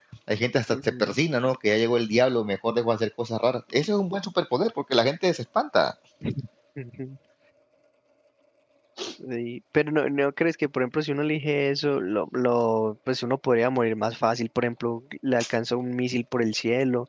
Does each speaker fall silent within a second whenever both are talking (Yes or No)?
Yes